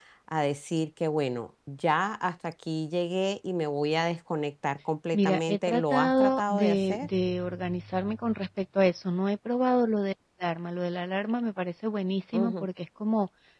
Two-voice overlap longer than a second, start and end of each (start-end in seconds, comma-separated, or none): 5.1-7.1